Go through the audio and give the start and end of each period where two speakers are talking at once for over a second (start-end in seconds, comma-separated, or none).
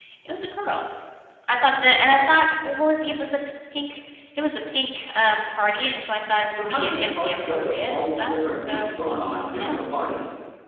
6.5-8.9